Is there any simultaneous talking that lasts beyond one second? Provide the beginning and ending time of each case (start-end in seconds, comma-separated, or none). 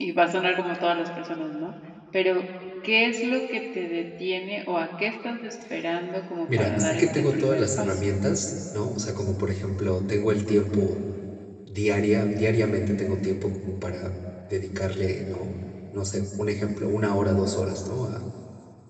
6.5-8.0